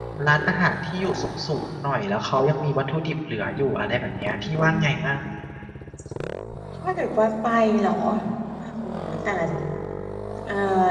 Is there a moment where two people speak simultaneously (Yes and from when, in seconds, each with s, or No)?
Yes, from 3.5 s